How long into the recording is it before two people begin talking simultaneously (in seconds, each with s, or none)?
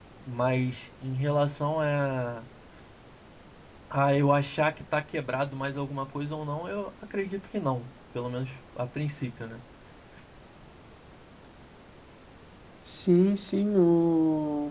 none